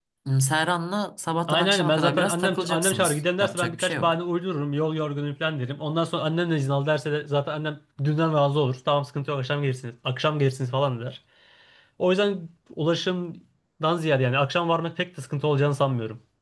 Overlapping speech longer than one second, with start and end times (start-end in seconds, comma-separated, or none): 1.5-4.2